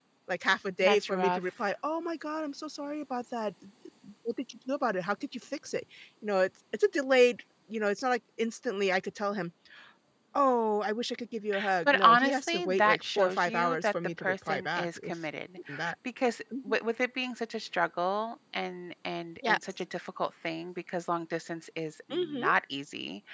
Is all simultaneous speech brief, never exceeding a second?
No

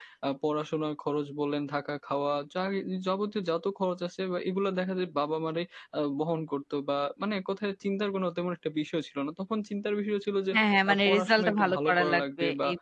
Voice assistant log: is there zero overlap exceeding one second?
No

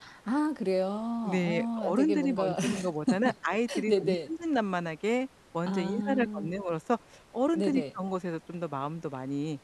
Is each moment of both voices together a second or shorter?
No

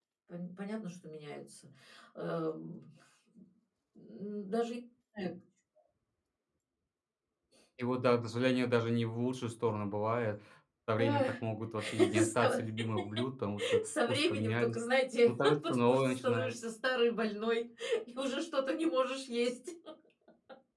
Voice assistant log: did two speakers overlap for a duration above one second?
Yes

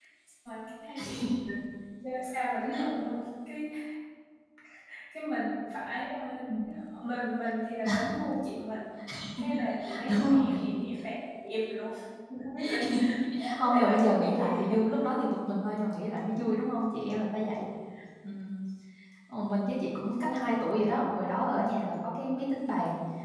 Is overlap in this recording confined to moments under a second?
No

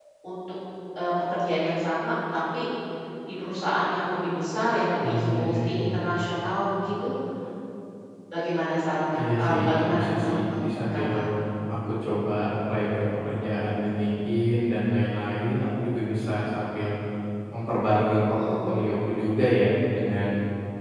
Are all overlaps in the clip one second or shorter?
No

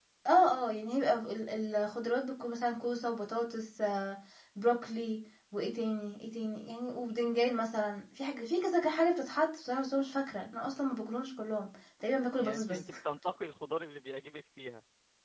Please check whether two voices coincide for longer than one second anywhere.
No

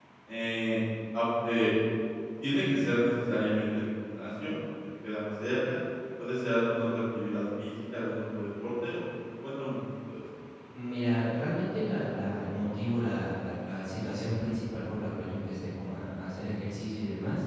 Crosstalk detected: No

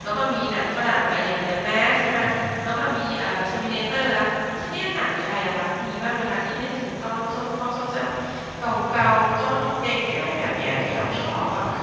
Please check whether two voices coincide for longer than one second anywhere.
Yes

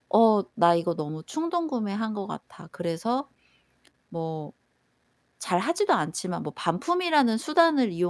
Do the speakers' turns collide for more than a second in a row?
No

